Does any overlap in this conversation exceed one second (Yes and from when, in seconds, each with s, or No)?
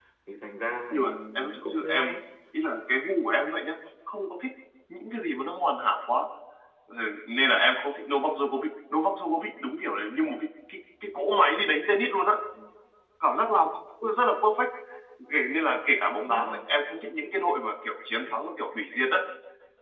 Yes, from 0.9 s